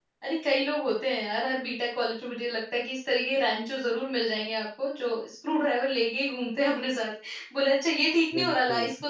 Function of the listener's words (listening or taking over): listening